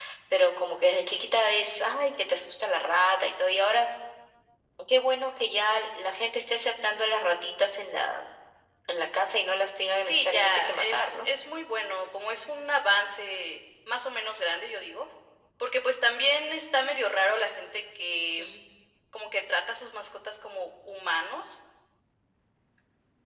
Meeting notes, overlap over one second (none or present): present